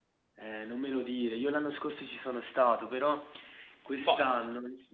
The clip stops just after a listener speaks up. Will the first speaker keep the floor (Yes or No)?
Yes